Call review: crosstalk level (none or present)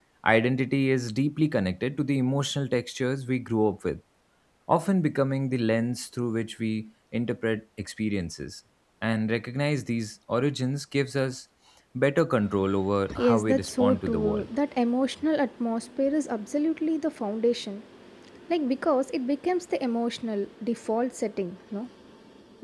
present